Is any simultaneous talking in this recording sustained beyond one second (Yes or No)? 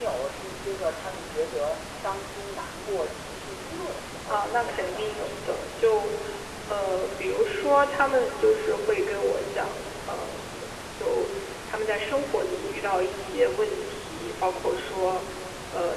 Yes